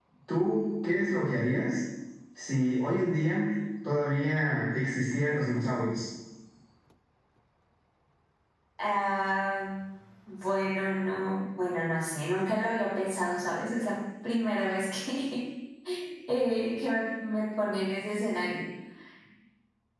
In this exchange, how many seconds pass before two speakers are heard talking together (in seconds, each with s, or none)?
none